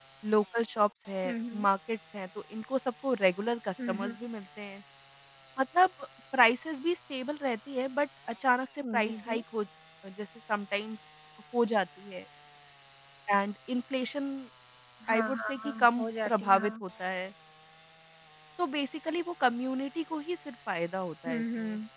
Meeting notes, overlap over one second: present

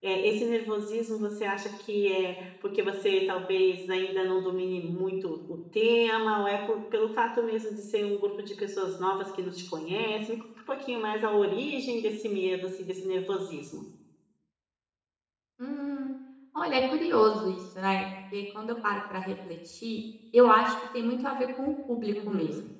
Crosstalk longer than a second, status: none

